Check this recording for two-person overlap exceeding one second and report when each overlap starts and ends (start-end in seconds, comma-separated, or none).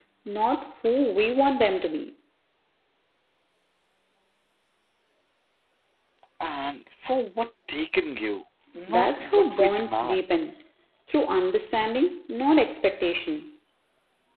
8.9-10.3